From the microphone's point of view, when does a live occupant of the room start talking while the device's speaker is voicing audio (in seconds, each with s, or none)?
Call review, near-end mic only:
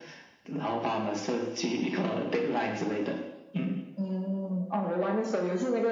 none